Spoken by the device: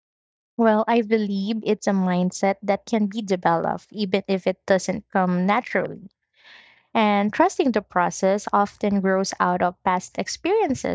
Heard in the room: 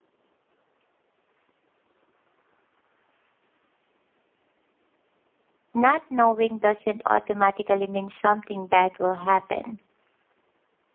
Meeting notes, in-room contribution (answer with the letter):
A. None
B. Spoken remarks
B